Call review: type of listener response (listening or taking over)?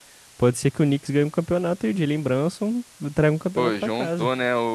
taking over